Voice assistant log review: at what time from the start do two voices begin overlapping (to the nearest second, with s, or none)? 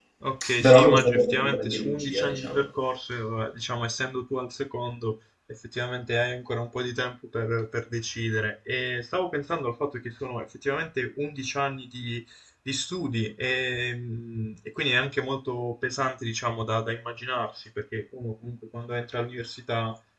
1 s